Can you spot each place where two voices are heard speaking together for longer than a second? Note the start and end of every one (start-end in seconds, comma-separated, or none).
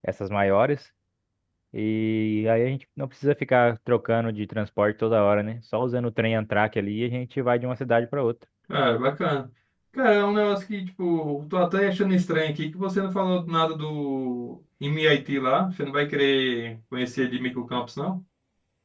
none